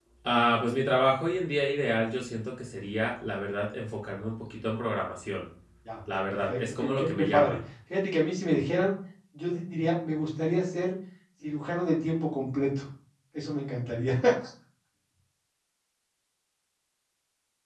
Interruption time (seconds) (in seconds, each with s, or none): 6.3 s